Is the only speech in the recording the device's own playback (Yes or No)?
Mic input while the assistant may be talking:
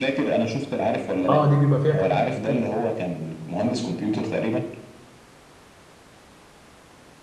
No